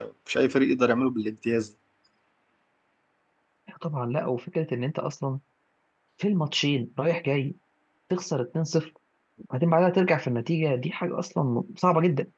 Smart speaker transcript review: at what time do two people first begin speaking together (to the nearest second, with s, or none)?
none